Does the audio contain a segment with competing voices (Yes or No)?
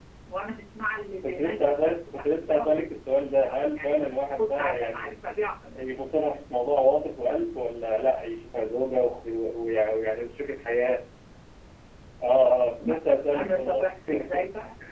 Yes